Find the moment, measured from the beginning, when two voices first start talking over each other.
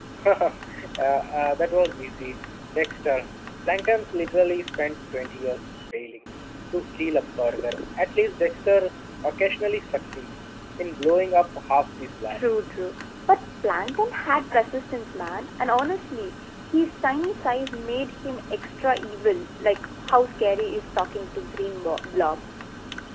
none

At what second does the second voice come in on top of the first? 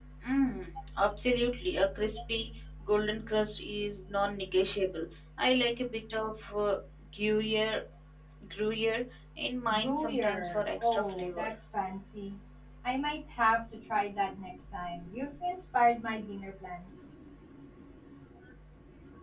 10 s

